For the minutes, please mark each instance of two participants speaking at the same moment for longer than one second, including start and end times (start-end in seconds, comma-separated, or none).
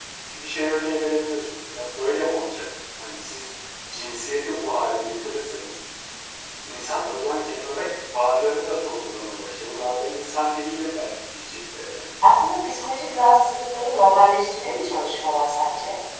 none